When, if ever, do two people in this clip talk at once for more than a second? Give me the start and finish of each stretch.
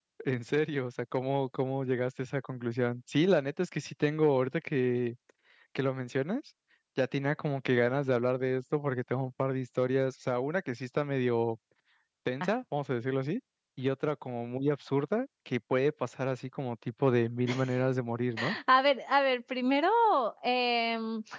none

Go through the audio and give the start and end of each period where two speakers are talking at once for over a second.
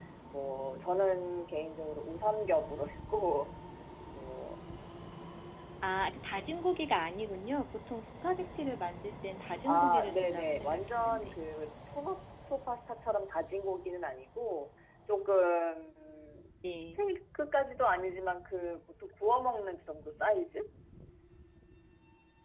9.6-11.4

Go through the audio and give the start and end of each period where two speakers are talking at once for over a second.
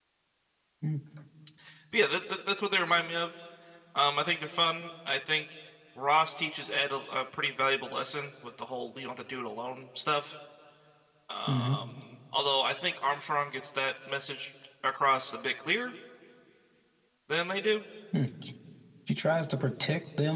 none

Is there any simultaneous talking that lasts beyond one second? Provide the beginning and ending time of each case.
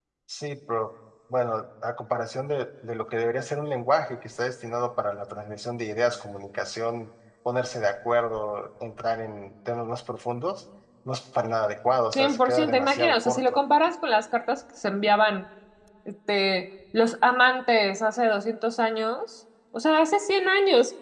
12.1-13.6

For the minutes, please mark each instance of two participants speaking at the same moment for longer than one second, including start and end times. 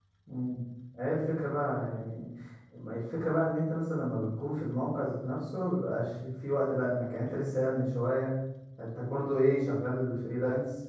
none

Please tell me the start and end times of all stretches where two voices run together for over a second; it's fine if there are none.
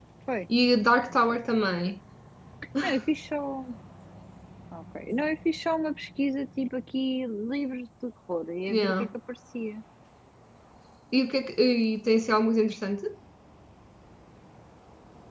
none

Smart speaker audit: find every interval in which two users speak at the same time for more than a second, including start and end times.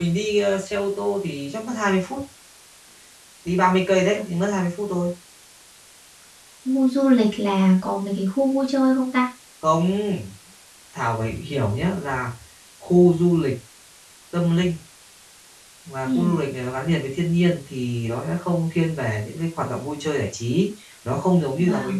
none

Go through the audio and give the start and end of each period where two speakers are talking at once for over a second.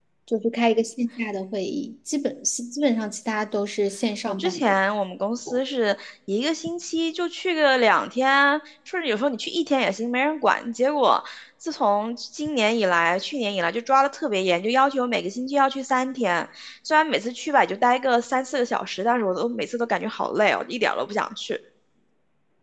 none

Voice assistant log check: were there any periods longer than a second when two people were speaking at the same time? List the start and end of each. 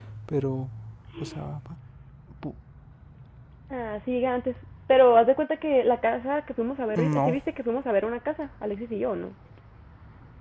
none

